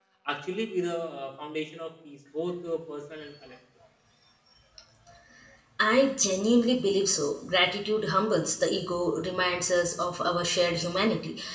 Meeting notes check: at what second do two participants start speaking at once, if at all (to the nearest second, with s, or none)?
none